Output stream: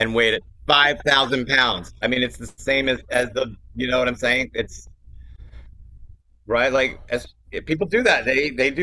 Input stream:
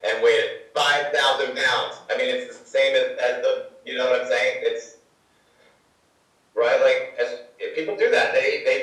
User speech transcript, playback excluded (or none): none